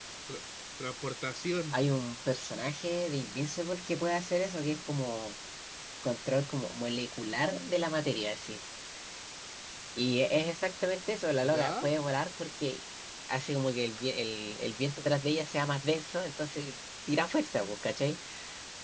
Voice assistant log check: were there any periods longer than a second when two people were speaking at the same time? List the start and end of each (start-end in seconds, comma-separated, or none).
none